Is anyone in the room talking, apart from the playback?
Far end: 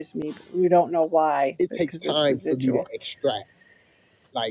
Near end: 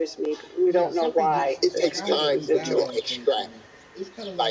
Yes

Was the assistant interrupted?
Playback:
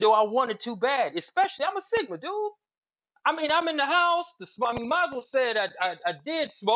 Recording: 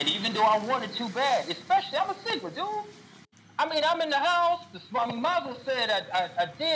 No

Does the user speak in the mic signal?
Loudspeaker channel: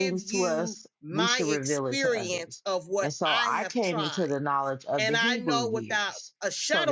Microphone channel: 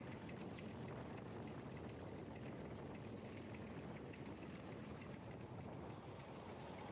No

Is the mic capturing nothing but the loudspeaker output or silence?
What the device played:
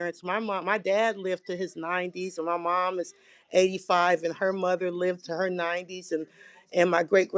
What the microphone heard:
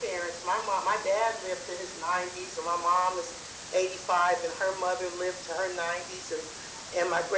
Yes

